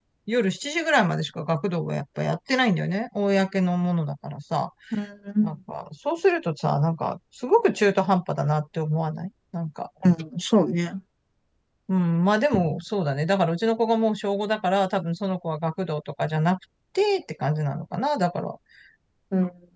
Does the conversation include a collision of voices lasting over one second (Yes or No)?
No